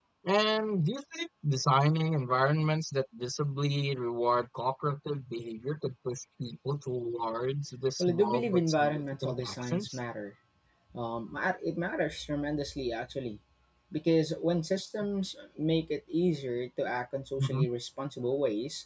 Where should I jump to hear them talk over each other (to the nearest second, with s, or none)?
8 s